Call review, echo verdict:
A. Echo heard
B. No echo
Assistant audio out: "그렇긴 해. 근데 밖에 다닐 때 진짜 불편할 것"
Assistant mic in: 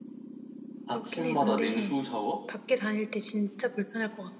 A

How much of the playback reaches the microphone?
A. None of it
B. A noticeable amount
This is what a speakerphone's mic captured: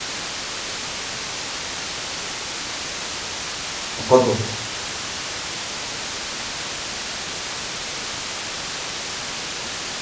A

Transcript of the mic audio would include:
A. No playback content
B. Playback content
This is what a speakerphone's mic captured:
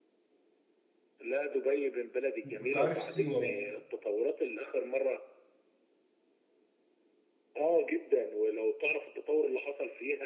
B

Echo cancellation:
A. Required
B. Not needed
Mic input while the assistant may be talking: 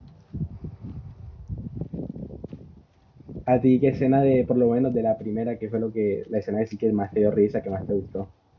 B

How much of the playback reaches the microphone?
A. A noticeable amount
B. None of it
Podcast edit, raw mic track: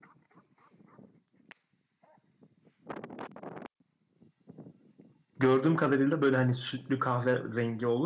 B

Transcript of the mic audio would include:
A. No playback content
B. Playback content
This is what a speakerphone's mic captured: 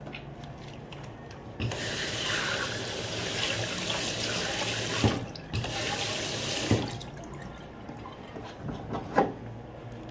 A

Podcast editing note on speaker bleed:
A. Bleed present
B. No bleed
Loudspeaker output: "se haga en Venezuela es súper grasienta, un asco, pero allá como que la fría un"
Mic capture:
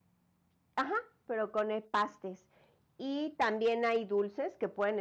B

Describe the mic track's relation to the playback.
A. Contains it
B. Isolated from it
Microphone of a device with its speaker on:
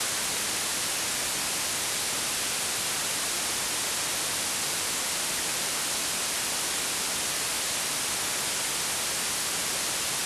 B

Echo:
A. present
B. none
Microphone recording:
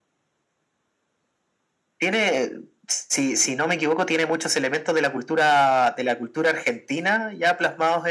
A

